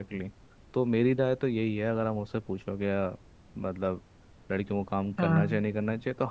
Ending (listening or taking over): listening